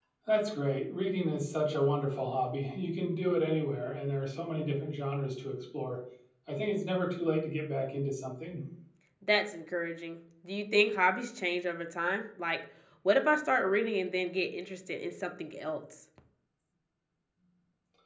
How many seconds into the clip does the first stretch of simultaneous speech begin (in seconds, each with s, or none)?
none